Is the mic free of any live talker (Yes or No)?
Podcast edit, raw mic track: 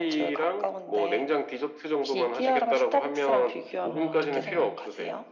No